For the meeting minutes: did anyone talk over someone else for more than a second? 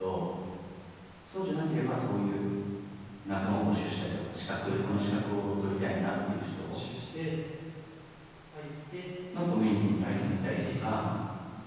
Yes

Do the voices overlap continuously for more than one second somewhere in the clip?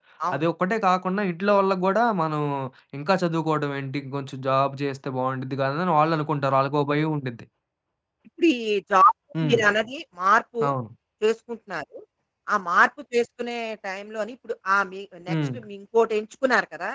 No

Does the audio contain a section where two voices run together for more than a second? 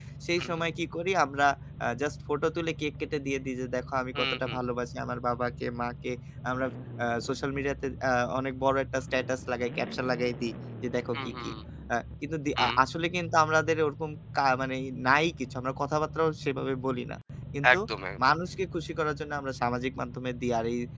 No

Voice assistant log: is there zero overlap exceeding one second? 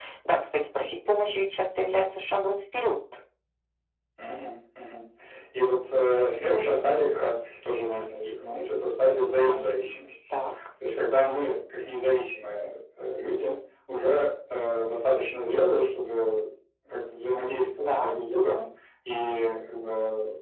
Yes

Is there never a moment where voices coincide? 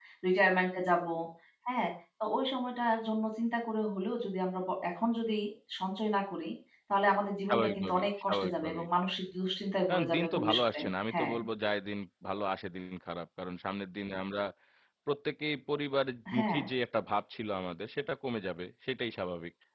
No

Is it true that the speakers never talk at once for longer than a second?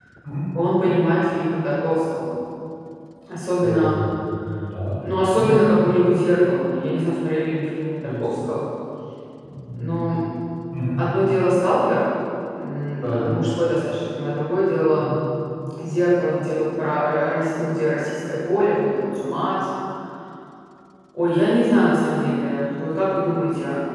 Yes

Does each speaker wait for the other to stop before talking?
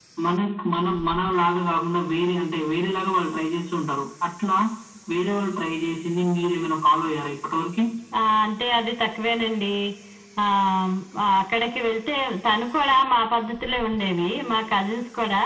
Yes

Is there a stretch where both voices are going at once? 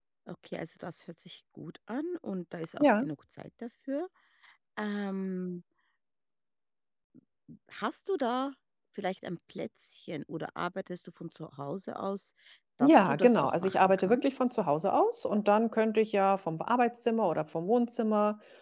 Yes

